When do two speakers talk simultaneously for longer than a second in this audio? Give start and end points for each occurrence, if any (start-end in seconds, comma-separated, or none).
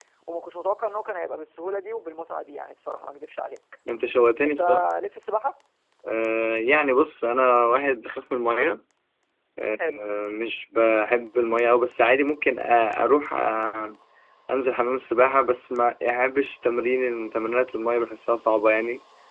none